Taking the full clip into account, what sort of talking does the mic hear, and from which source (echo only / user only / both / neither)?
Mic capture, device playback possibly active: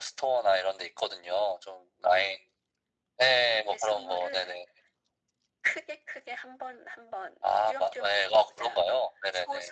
echo only